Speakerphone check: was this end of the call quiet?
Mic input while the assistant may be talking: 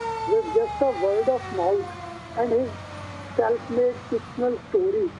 Yes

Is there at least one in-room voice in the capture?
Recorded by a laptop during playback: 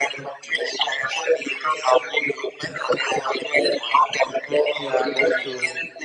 Yes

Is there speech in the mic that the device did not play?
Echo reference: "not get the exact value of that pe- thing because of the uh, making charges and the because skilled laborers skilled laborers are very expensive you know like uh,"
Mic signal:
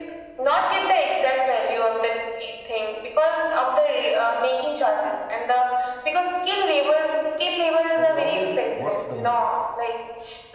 Yes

